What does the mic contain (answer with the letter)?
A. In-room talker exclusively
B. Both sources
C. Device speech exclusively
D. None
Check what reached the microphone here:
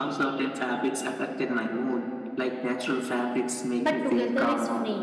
B